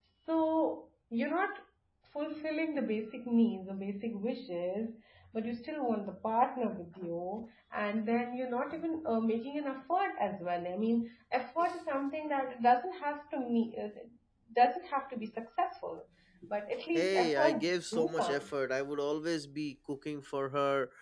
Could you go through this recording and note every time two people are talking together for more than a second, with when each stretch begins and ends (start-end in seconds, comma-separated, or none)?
16.9-18.5